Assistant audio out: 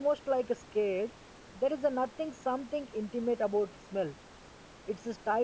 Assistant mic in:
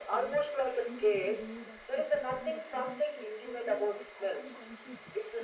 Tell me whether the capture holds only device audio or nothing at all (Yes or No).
No